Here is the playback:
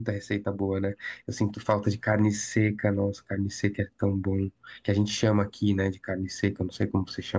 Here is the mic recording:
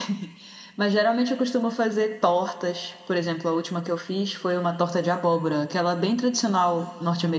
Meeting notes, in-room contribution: present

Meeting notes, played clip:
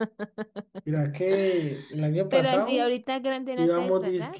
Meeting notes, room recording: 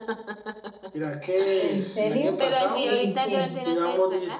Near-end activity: present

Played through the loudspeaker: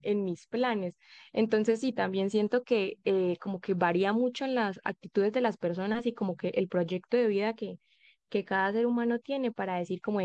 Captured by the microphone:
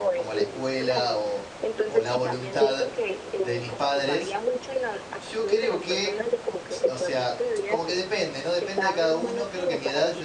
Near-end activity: present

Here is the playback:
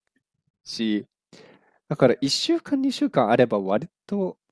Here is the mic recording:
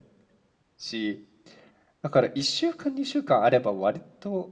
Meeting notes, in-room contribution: none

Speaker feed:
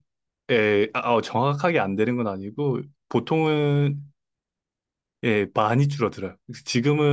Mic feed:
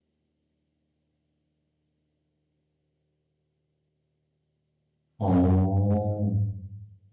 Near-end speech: present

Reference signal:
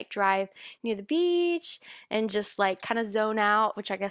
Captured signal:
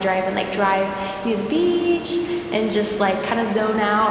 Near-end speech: none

